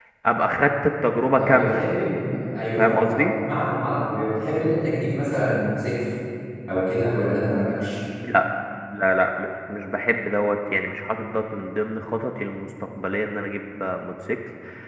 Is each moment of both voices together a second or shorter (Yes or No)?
Yes